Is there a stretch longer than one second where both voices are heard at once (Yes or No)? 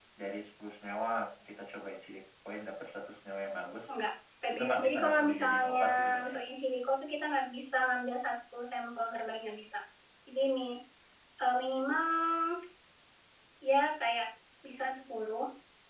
Yes